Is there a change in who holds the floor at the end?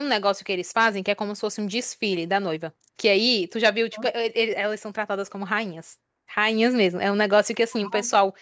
No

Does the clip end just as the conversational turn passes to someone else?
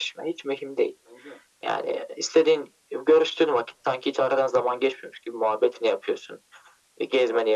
No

